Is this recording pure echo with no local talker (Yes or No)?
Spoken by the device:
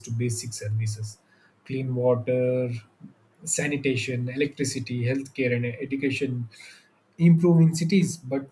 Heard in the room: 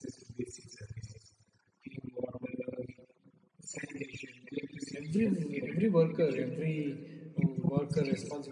No